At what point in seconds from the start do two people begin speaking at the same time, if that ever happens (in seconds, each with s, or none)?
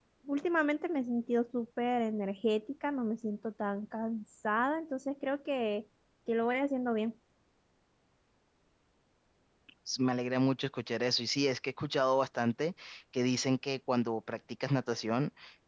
none